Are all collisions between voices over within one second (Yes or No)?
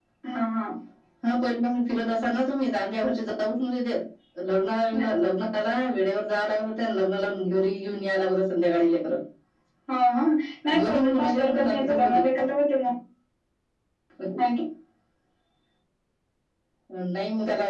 No